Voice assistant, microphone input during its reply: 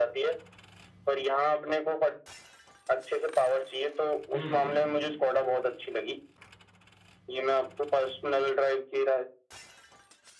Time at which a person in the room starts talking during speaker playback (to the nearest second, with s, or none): 4 s